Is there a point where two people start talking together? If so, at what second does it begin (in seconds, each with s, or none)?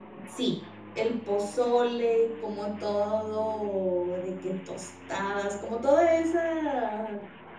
none